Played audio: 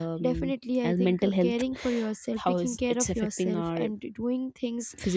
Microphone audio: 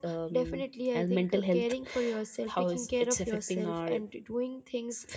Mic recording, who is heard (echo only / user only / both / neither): echo only